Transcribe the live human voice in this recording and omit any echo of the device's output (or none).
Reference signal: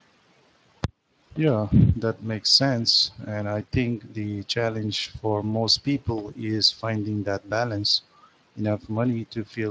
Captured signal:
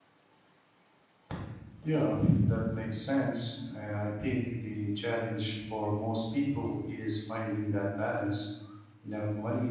none